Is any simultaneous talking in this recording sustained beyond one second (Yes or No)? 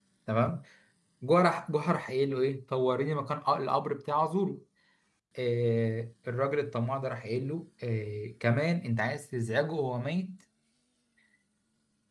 No